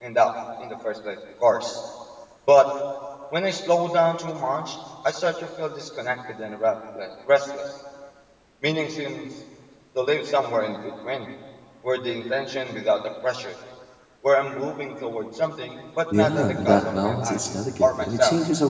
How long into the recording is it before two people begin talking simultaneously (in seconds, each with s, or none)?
16.1 s